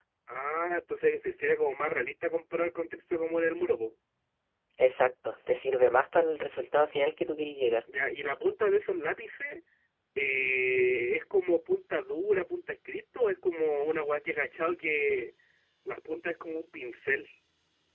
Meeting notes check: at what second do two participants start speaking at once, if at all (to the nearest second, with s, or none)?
none